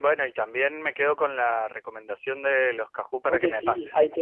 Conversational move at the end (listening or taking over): taking over